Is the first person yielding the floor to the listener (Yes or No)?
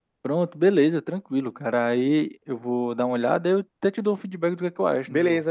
Yes